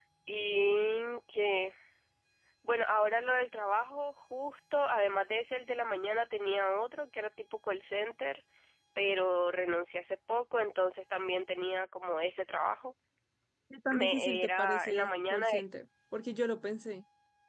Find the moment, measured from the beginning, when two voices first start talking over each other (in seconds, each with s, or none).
13.9 s